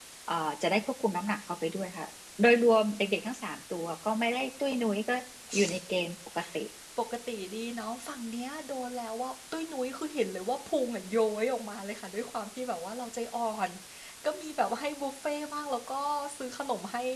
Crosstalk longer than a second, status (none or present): none